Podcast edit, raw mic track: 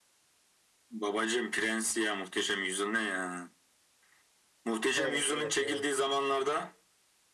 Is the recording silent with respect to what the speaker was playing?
No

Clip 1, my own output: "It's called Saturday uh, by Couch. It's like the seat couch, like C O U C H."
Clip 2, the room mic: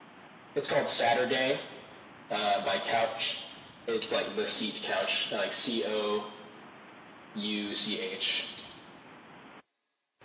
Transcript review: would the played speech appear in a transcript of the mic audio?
Yes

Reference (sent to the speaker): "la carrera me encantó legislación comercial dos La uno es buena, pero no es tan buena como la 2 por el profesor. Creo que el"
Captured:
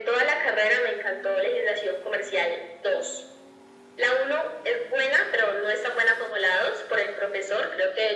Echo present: Yes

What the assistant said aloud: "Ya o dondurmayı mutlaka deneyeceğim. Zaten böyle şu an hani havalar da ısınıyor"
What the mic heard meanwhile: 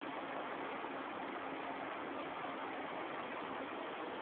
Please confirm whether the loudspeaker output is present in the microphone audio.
No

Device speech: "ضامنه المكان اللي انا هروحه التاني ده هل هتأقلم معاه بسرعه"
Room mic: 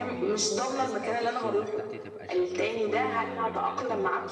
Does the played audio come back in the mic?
Yes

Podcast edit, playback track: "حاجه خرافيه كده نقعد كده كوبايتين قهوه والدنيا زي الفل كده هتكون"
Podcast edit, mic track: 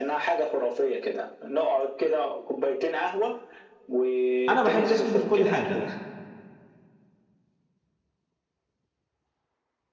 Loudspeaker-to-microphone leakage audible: Yes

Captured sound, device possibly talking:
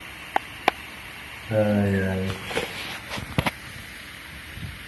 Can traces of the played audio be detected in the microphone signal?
No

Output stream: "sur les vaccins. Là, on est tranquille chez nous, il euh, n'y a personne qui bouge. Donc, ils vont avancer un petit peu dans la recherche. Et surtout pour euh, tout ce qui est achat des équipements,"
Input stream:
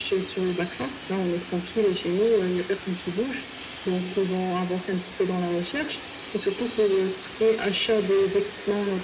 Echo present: Yes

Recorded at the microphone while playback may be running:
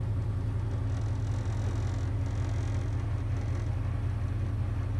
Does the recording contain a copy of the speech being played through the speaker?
No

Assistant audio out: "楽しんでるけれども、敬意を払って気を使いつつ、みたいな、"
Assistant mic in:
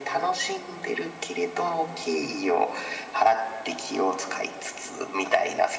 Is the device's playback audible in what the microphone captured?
Yes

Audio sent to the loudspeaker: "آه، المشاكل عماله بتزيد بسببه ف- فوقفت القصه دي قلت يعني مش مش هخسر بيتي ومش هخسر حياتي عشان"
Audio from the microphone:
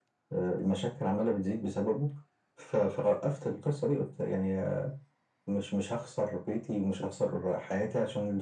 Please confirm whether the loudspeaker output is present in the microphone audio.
Yes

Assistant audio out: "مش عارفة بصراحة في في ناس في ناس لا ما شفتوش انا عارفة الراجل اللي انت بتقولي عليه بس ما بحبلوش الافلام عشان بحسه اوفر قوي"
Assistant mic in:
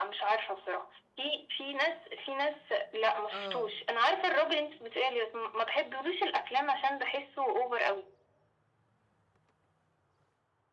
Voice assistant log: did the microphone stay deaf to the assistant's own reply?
No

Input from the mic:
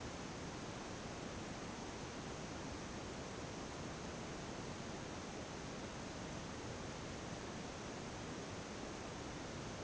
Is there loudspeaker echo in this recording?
No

